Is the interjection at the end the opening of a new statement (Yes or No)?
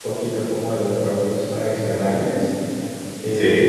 No